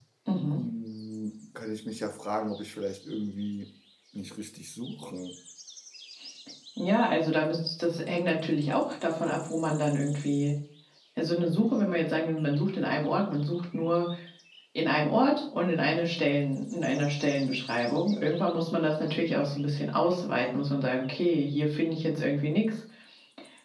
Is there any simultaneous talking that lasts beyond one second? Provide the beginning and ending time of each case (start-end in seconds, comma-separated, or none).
none